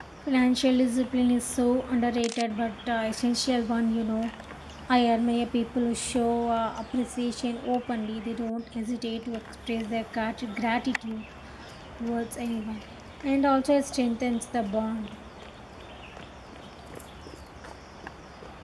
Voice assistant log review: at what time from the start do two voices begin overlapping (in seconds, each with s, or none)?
none